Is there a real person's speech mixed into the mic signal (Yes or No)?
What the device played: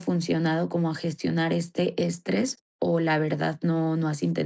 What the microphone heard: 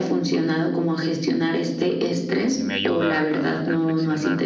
Yes